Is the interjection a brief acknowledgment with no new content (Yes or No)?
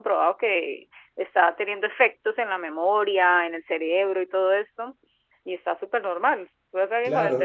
No